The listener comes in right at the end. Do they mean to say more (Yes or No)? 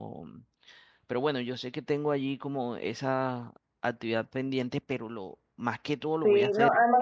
Yes